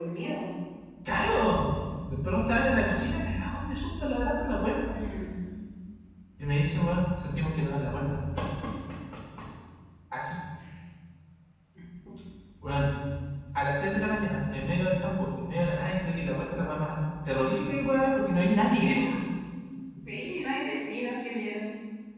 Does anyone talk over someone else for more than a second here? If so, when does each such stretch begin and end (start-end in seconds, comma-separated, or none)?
none